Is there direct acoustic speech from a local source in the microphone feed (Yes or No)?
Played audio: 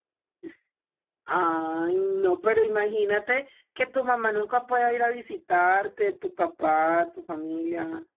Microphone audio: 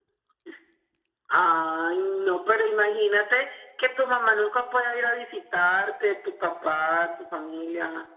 No